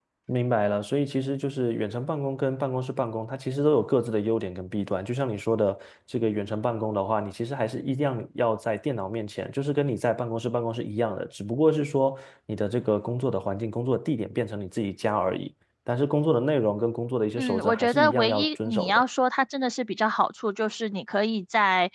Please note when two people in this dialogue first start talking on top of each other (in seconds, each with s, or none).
17.4 s